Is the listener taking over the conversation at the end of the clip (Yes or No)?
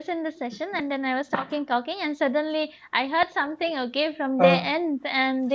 No